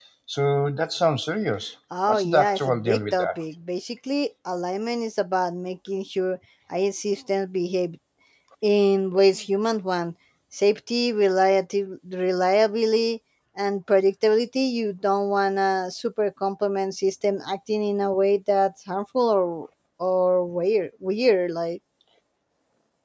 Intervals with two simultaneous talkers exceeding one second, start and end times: 2.1-3.3

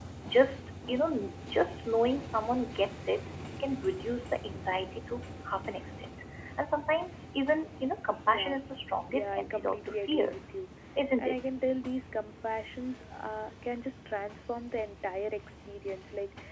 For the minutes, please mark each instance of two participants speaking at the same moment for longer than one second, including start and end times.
9.1-10.4

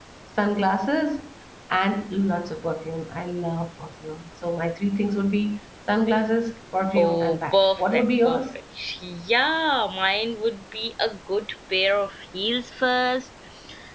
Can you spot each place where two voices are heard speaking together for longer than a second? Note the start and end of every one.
7.0-8.4

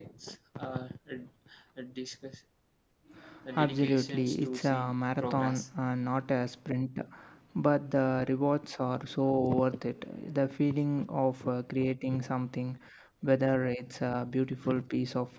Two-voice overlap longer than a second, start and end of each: 3.6-5.7

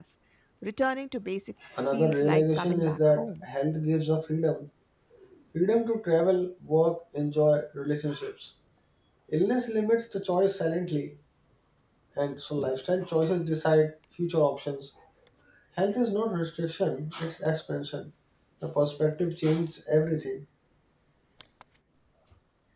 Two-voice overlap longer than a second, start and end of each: 1.9-3.5

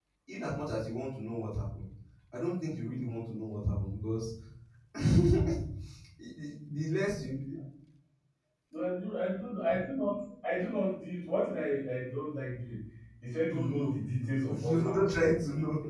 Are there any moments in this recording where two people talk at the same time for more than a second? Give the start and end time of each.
13.5-15.2

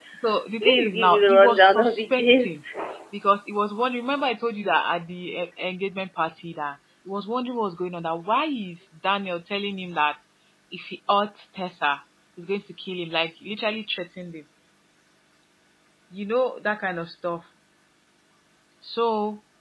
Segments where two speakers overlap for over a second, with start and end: 0.6-2.6

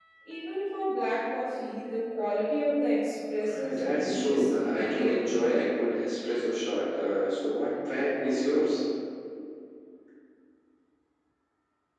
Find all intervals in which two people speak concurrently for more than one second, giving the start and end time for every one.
3.5-5.6

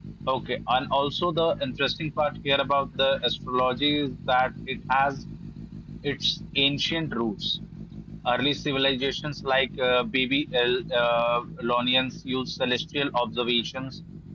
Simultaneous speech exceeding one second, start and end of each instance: none

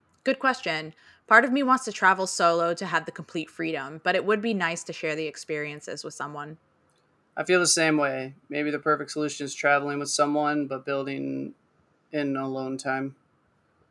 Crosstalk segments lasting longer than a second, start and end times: none

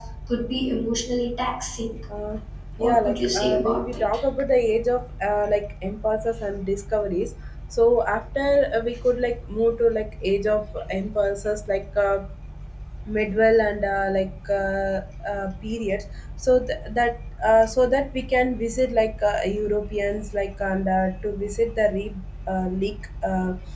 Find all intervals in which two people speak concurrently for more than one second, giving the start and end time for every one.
2.8-4.0

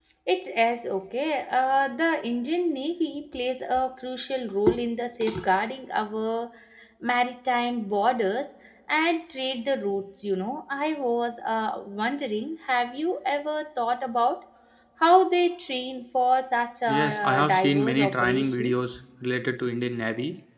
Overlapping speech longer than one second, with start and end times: 16.9-18.8

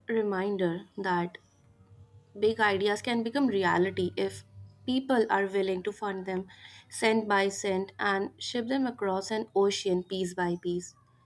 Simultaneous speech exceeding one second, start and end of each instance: none

